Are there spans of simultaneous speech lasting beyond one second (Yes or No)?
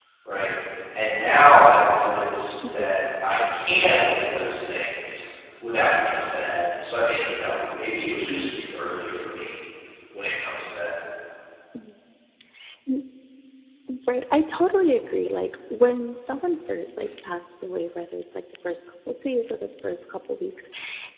No